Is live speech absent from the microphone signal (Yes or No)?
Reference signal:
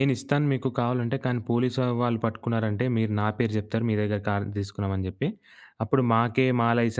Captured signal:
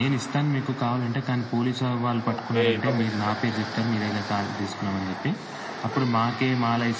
No